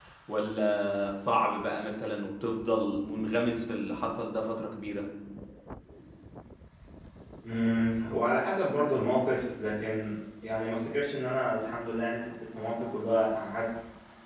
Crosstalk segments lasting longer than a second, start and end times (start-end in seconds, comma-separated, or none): none